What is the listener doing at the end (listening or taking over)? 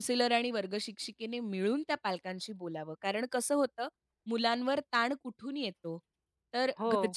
listening